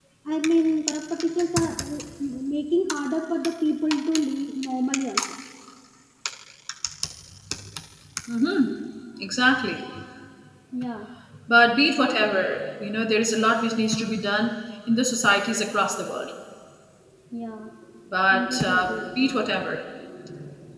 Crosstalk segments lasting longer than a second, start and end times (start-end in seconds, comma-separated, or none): 18.3-19.7